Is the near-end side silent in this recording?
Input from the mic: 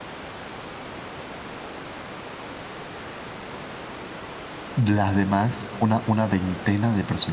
No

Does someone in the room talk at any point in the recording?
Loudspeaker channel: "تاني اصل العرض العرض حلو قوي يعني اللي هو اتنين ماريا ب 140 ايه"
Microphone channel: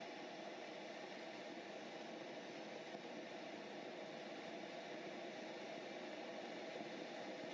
No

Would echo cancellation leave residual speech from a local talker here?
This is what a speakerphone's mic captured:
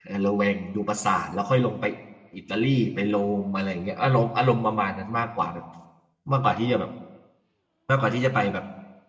Yes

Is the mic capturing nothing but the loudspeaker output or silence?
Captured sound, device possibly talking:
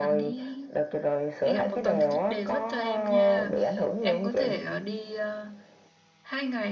No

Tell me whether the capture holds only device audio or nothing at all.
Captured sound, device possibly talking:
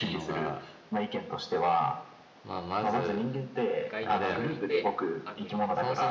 No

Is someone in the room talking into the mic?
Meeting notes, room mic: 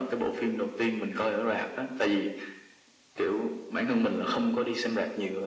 No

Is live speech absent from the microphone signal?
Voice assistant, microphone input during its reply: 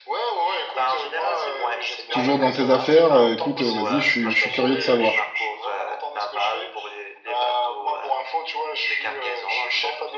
No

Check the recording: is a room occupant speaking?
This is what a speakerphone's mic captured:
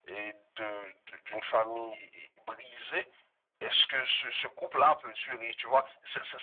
No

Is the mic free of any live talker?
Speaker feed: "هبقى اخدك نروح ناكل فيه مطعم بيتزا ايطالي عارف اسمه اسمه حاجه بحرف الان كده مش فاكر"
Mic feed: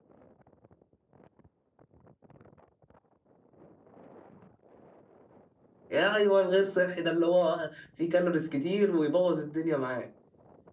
No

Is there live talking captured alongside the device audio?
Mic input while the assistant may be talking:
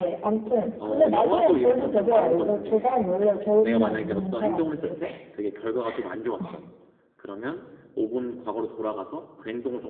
Yes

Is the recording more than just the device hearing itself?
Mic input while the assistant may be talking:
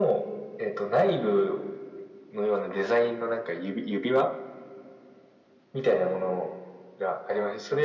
No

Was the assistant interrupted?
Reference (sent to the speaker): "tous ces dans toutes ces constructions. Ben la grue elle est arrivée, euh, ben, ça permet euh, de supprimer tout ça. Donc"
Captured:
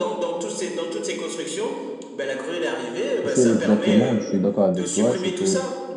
Yes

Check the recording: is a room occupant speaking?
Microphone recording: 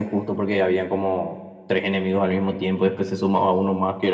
No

